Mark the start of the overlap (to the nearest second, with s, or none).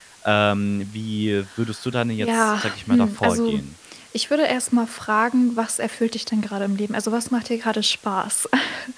2 s